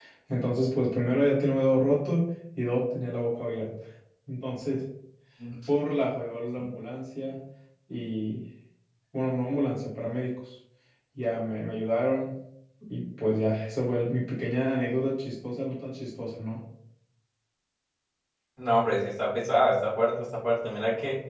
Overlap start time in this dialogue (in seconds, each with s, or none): none